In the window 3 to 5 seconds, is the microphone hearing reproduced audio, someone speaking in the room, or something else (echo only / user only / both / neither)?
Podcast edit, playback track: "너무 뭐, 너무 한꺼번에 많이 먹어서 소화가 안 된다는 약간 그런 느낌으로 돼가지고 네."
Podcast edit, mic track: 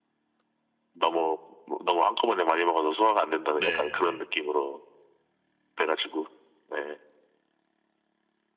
both